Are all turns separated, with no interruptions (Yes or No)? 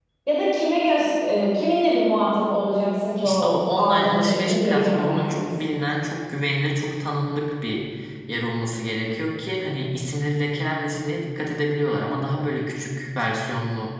No